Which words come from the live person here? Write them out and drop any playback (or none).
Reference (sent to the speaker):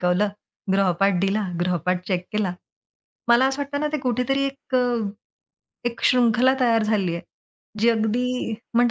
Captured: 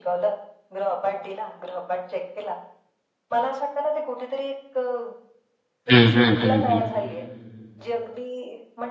हं, हं, हं, हं.